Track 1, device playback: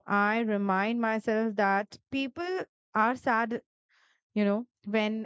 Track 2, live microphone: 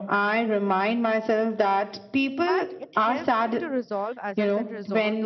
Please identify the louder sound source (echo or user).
echo